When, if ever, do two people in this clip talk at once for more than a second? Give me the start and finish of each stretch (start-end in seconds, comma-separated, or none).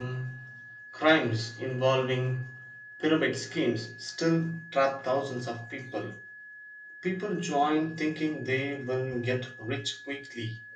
none